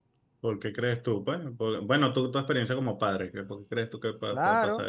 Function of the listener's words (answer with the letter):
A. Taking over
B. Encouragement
A